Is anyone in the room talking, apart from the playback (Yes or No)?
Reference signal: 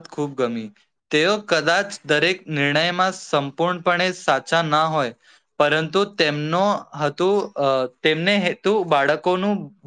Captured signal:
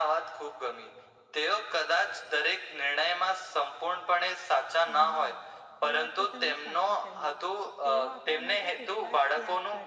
Yes